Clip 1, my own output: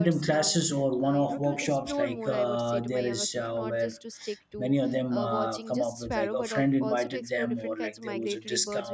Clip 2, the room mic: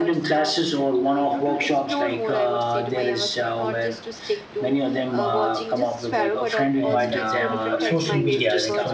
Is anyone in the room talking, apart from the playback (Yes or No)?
Yes